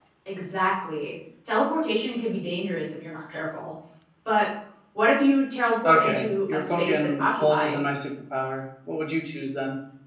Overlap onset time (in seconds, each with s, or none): 5.8 s